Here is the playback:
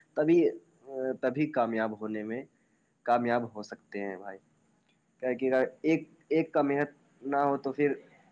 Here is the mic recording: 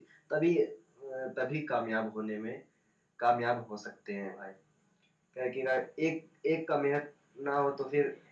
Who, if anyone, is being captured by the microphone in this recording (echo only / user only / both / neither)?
echo only